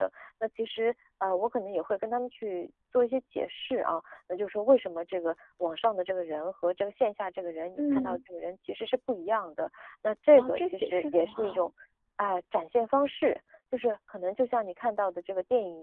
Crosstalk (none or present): present